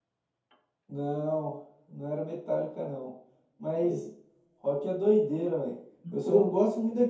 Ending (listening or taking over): listening